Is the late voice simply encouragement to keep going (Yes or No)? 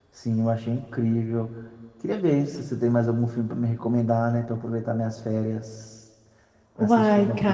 No